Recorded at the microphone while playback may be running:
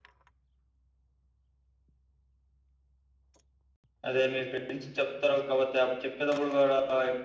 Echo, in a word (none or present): none